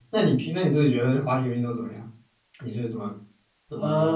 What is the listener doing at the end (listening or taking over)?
taking over